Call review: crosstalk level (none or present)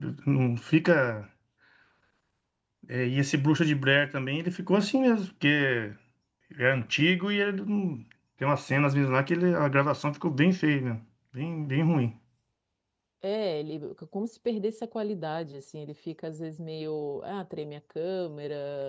none